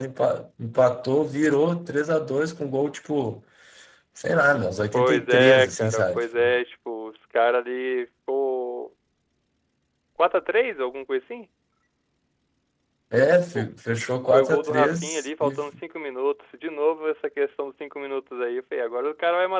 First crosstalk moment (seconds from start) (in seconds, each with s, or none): 4.9 s